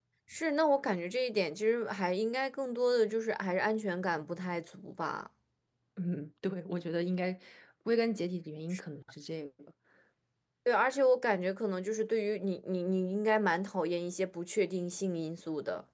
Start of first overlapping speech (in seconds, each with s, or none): none